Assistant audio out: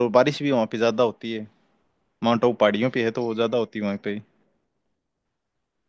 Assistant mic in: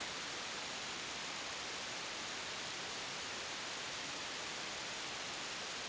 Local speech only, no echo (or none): none